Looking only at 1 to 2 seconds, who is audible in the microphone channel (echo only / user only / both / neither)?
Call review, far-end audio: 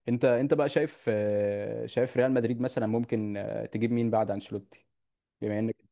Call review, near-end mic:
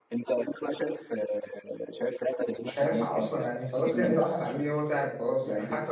echo only